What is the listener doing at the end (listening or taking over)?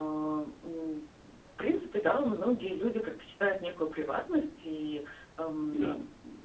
listening